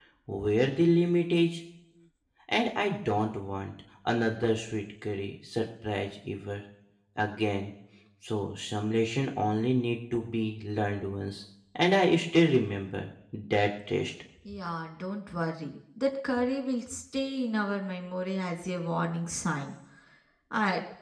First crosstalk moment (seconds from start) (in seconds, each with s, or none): none